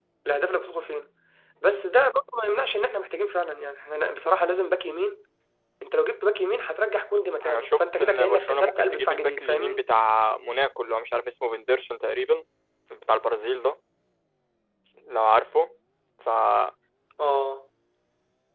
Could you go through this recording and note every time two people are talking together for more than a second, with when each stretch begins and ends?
7.4-9.8

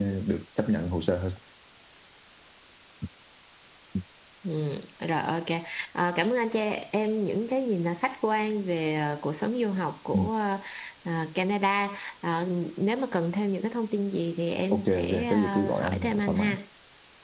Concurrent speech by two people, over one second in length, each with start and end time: 14.7-16.5

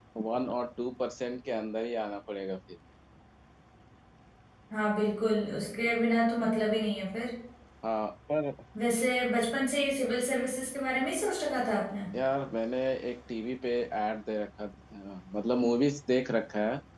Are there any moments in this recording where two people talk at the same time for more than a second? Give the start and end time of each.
none

